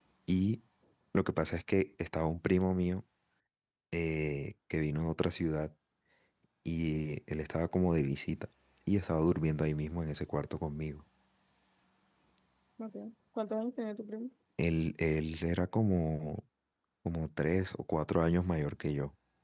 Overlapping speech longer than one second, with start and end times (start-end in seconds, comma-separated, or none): none